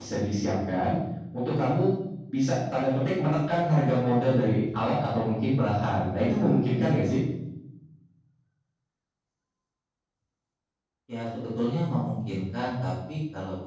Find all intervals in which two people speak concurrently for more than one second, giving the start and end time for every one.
none

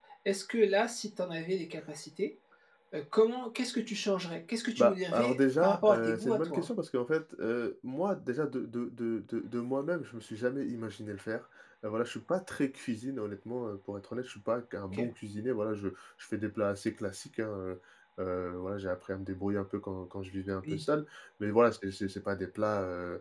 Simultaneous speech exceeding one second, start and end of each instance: 4.8-6.7

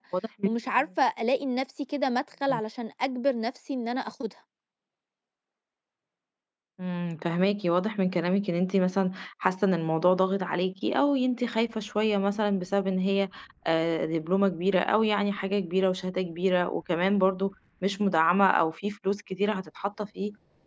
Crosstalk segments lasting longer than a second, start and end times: none

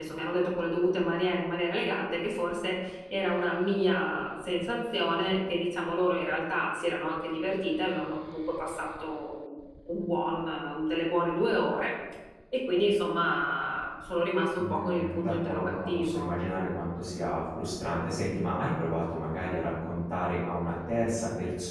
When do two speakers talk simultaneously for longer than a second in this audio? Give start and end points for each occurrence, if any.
14.6-16.3

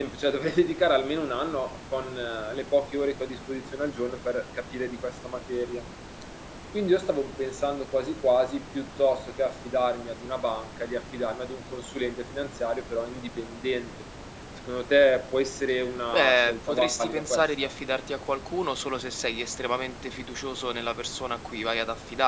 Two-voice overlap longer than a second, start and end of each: 16.1-17.5

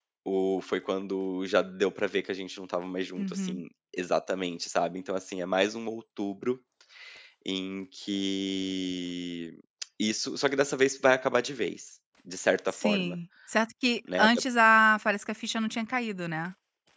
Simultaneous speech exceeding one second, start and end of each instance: none

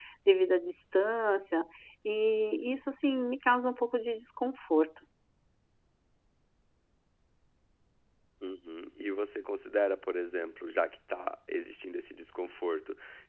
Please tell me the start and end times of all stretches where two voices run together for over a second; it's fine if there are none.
none

